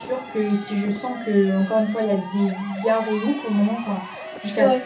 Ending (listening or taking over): listening